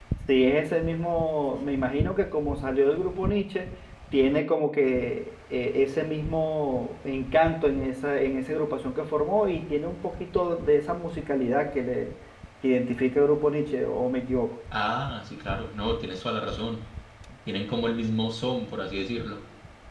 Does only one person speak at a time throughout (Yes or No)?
Yes